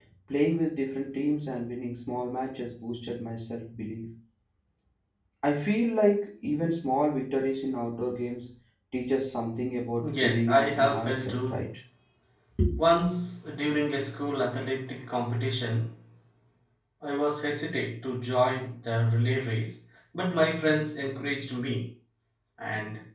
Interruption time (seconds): 10.0 s

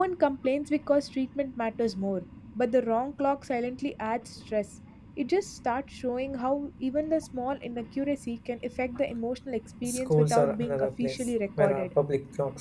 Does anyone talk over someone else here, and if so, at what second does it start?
9.8 s

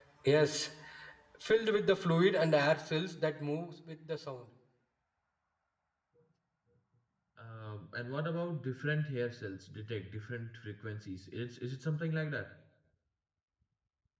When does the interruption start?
none

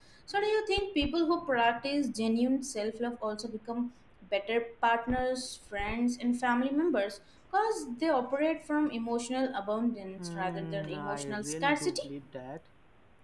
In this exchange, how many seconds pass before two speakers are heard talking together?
10.2 s

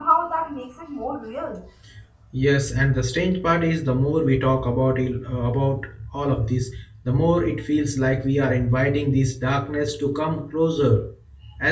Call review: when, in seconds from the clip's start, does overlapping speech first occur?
none

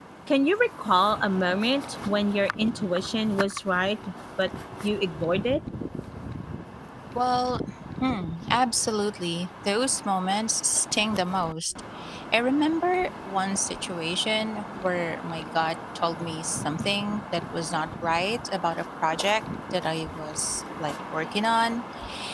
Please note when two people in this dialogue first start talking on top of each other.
none

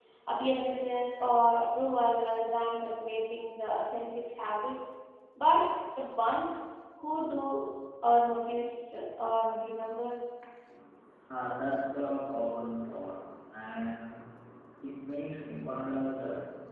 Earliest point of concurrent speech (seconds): none

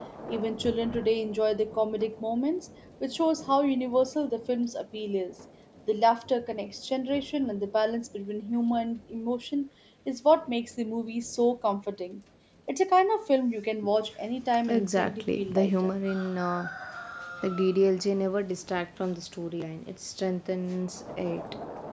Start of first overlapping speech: 14.7 s

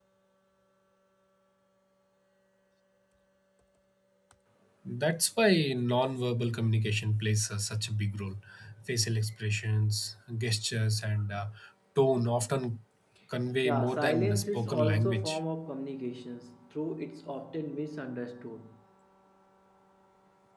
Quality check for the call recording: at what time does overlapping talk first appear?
13.6 s

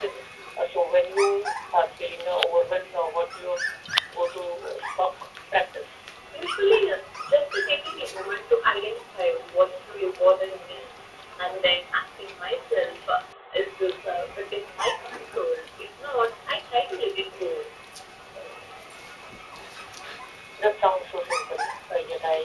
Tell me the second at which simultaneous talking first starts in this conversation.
none

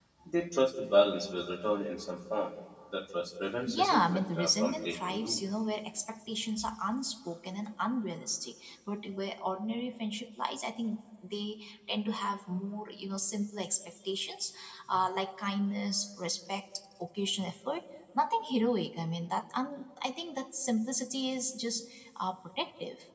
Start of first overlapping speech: 3.7 s

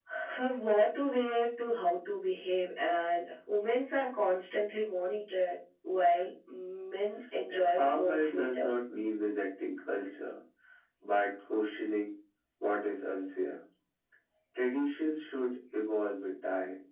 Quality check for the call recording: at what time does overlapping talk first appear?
7.5 s

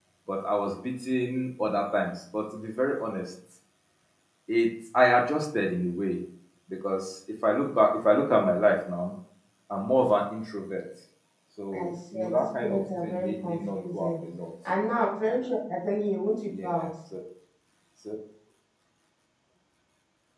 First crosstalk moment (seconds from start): 11.7 s

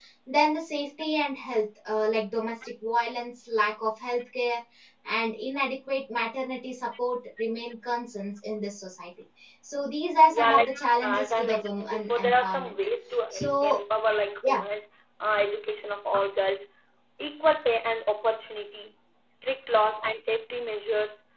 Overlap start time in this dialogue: 10.3 s

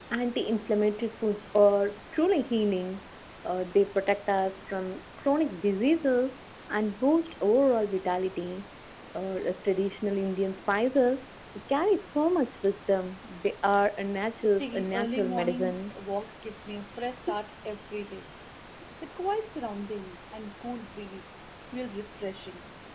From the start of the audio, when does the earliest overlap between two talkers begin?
14.6 s

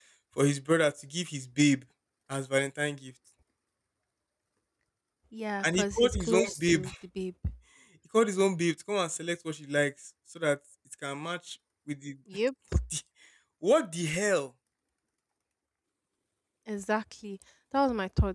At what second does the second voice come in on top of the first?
5.6 s

